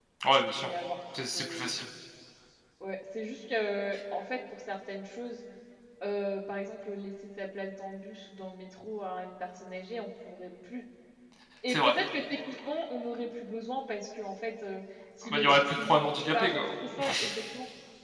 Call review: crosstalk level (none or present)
present